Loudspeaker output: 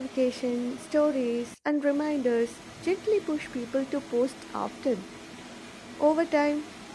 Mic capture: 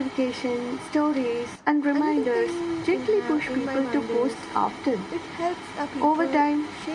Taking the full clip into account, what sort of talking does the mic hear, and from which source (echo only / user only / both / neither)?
both